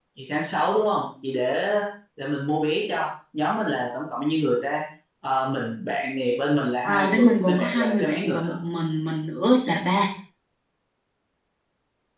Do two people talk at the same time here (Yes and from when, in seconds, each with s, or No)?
Yes, from 6.8 s